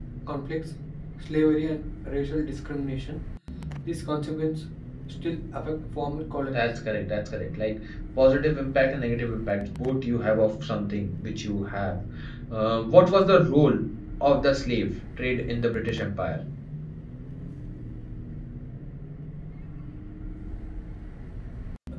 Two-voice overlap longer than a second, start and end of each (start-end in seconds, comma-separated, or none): none